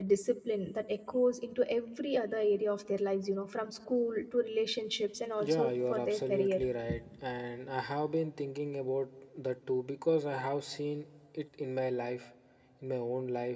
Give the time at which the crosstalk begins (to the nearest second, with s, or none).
5 s